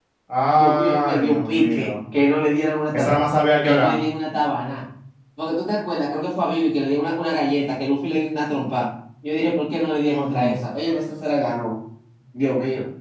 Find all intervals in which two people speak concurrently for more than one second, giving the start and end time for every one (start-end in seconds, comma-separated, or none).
0.6-1.9